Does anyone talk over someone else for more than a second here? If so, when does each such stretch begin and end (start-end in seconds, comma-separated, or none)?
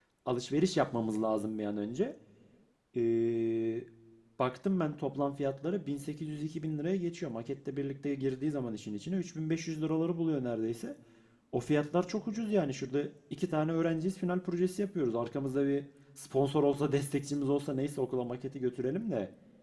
none